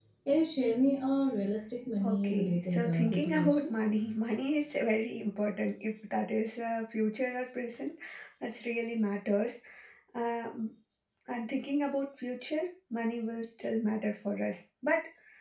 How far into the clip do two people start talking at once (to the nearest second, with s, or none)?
2 s